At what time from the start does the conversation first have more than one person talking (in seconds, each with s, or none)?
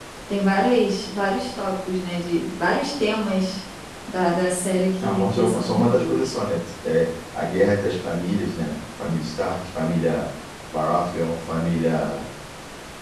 5.0 s